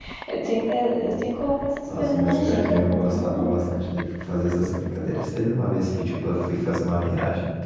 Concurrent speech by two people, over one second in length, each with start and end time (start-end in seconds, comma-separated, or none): 1.8-3.5